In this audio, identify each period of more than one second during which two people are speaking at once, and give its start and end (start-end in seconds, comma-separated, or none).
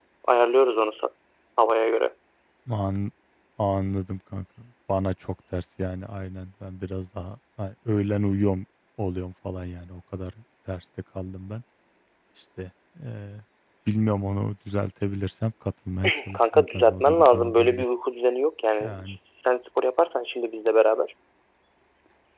16.3-17.9